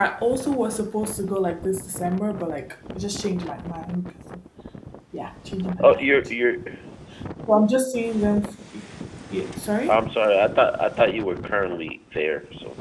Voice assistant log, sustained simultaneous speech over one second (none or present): none